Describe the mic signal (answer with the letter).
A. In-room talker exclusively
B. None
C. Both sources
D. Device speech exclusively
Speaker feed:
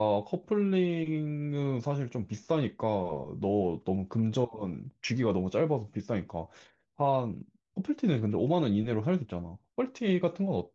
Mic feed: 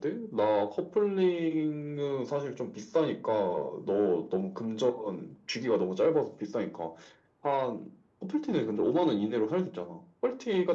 D